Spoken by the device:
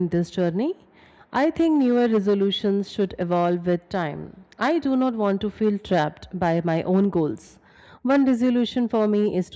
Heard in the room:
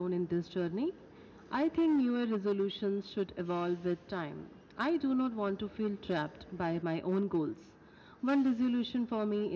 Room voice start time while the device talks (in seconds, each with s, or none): none